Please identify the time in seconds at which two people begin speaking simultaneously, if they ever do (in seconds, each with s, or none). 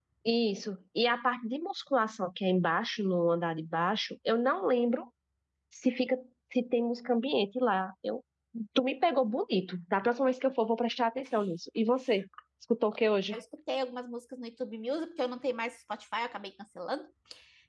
none